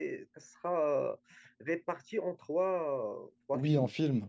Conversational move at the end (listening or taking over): taking over